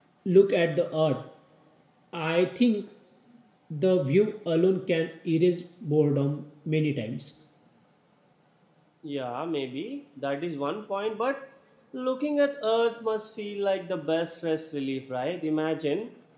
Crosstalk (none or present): none